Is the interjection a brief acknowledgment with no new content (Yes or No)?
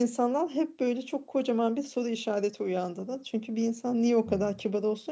Yes